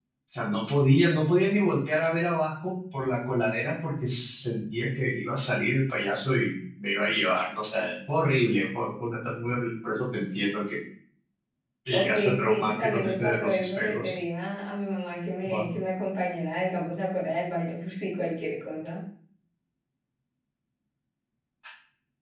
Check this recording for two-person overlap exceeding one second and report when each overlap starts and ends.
11.9-14.1

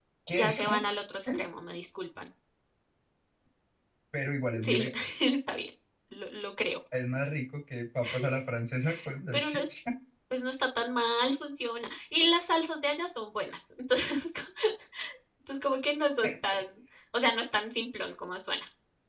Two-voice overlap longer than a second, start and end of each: none

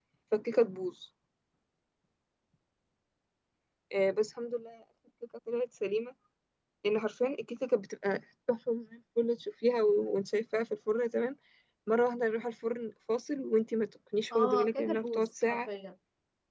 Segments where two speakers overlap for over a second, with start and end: 14.3-15.7

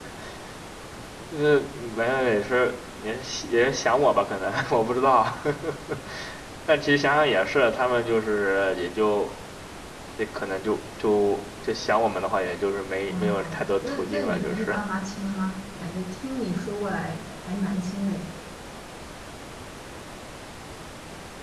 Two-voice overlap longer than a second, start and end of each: 13.1-14.7

